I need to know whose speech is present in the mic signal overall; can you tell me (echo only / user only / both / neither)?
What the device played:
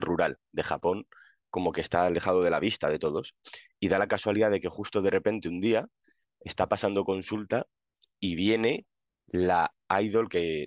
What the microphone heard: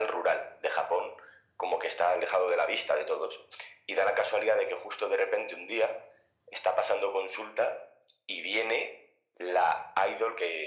echo only